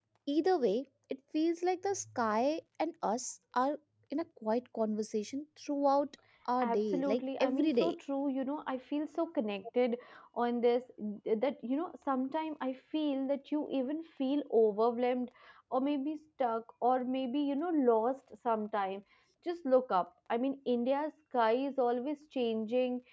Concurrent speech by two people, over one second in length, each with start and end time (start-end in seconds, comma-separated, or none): 6.7-7.9